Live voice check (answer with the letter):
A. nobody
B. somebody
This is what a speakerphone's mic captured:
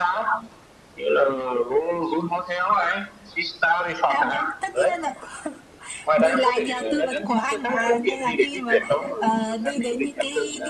A